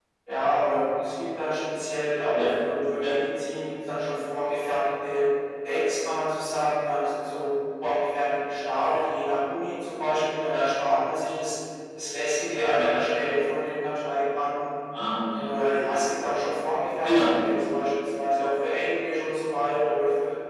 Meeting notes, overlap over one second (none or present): none